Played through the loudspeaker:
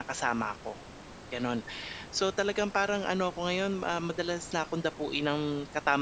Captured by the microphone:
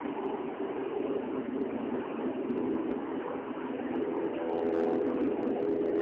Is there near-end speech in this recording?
No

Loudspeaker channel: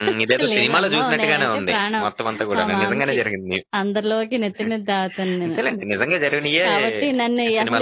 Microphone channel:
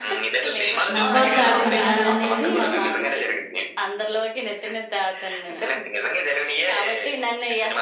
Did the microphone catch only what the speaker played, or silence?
No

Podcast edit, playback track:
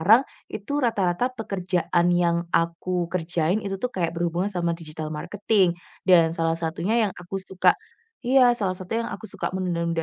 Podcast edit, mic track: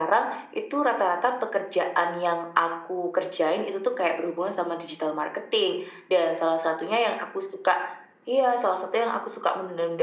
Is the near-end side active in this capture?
No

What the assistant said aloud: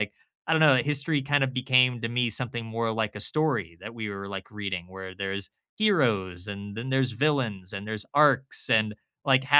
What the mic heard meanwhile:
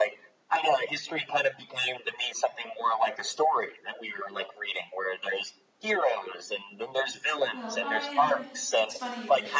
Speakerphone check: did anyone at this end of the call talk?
Yes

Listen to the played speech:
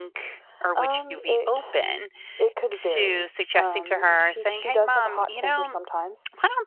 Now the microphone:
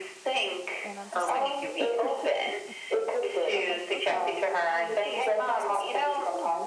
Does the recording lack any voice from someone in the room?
No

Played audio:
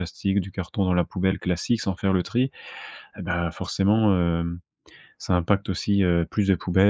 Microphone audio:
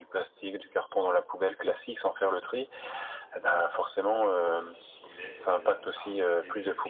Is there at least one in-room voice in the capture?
Yes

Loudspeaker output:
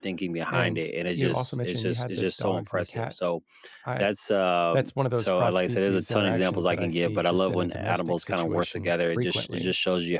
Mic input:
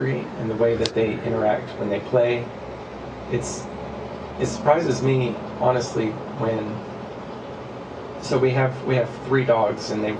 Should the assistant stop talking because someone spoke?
Yes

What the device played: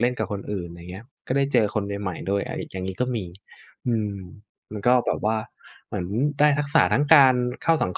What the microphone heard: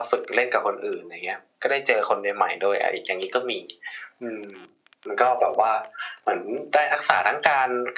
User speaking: No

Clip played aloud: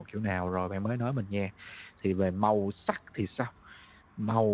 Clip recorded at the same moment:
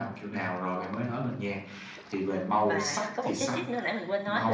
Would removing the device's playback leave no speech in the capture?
No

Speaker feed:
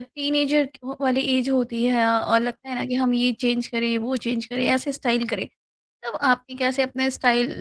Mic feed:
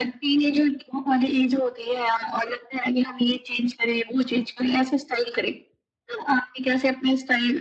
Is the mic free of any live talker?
Yes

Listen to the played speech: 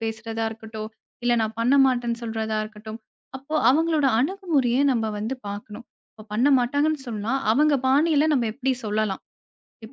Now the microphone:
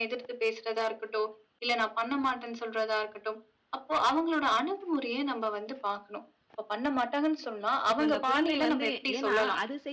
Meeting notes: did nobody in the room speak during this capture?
No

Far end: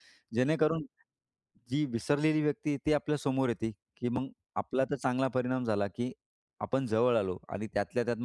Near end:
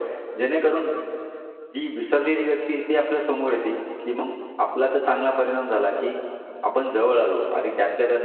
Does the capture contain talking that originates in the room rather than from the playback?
No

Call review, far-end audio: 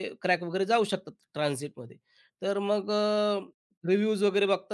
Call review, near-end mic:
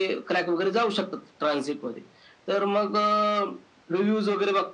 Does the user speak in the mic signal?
No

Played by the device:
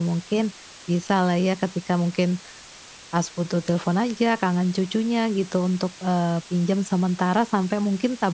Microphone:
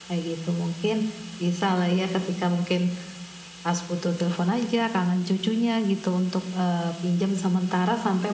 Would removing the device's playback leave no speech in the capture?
Yes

